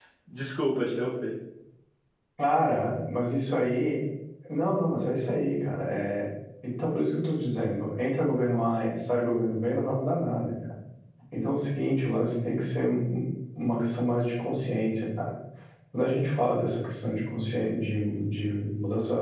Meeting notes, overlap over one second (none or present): none